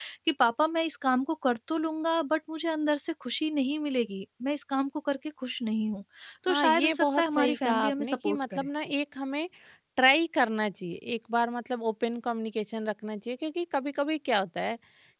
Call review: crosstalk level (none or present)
present